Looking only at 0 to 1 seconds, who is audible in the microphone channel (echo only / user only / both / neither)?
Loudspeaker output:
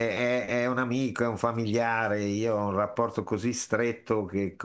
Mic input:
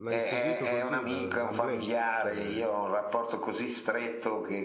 both